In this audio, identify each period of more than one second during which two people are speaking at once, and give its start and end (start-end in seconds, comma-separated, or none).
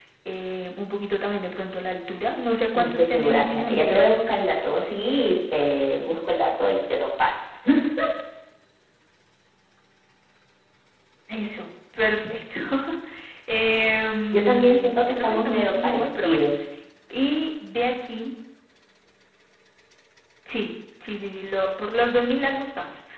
2.7-4.2, 14.3-16.4